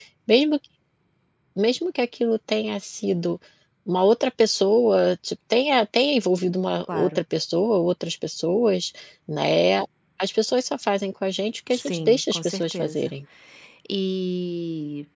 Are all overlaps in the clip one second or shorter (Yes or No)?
No